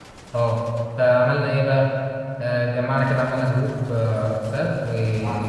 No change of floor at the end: Yes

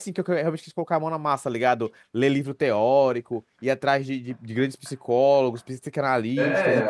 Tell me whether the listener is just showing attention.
No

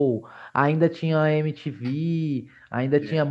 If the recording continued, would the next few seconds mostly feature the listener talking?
No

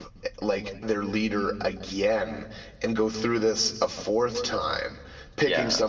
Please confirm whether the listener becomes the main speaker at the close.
No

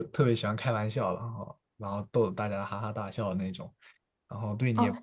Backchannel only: No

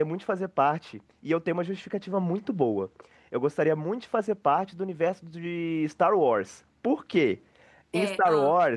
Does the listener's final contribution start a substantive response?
No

